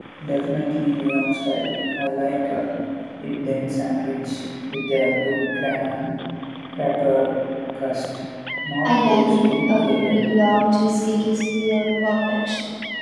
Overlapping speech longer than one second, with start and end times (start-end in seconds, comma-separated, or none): 8.8-10.2